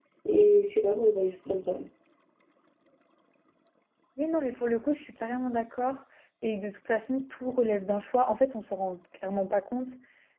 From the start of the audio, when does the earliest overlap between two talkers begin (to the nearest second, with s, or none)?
none